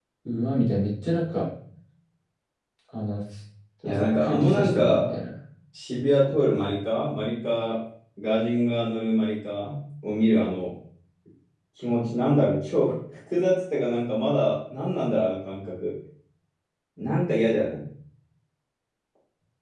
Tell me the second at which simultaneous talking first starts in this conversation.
3.8 s

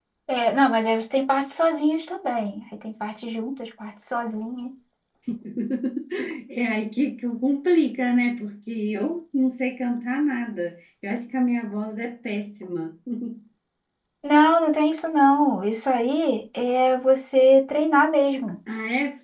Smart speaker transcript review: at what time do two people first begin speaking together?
none

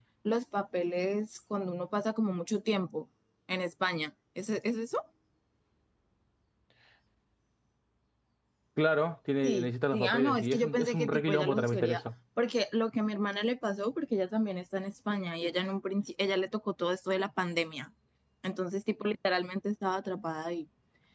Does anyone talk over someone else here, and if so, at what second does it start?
9.4 s

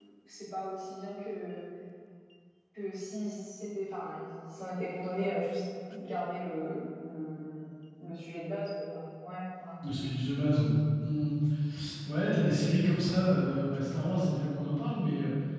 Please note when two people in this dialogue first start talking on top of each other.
none

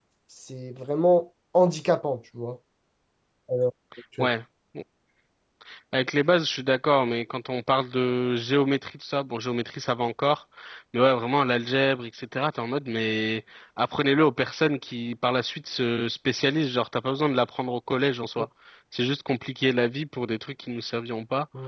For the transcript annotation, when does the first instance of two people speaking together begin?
none

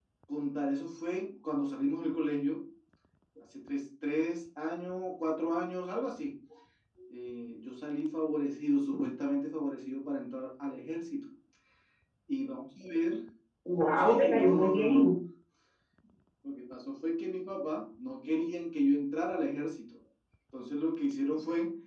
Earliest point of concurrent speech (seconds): 14.0 s

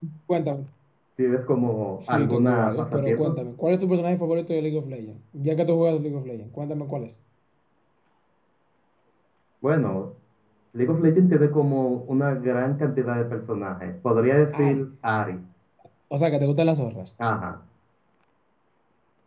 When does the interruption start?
2.1 s

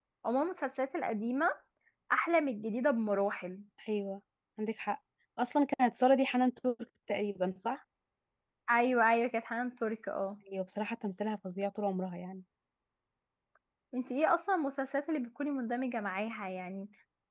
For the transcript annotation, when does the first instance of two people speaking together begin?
none

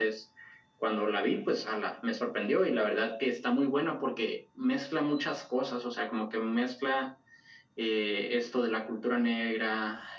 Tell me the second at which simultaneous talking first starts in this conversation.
none

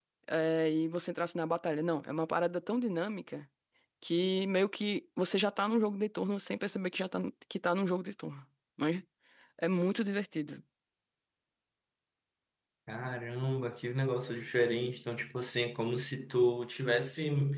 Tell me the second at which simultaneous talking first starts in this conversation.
none

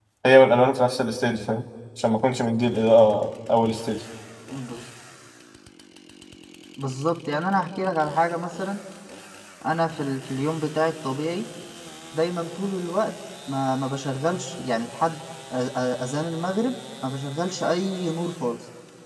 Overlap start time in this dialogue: none

